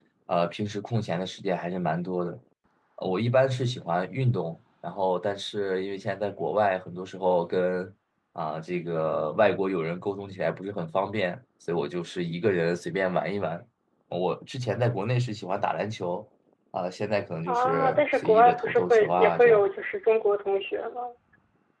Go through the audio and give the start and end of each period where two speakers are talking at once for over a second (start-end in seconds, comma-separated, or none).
17.5-19.6